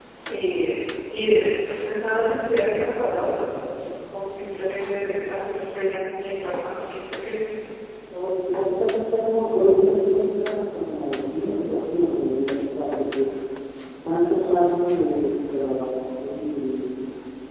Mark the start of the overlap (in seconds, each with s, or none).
none